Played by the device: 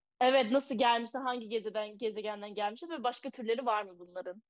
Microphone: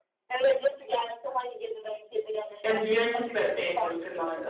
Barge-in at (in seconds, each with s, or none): 2.6 s